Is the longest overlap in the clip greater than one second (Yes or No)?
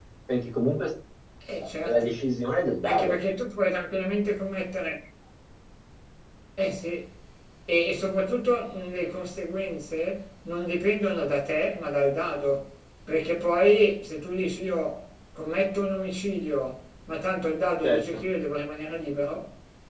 No